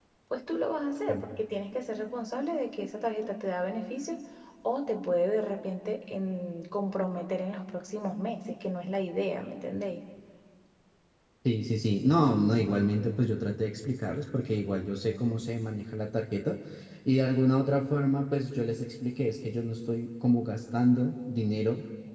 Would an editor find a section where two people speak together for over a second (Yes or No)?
No